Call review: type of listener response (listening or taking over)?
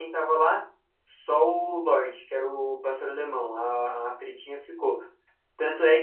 listening